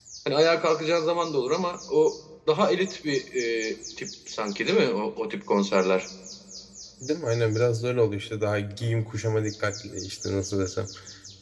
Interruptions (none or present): none